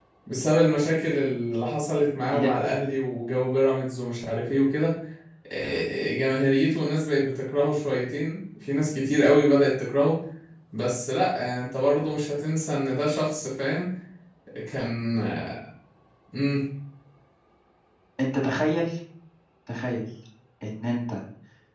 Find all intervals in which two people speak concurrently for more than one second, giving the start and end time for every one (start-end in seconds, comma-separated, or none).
none